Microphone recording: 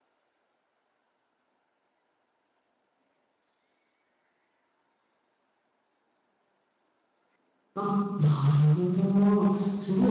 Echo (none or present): none